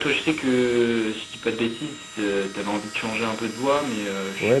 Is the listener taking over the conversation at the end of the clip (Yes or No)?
Yes